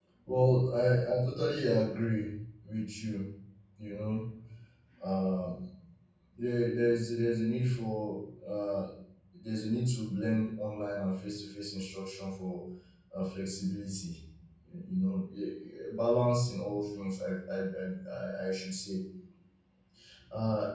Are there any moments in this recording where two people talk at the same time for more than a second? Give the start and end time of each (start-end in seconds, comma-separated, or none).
none